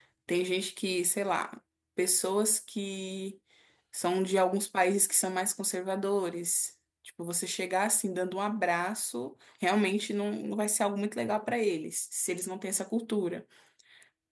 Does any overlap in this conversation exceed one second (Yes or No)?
No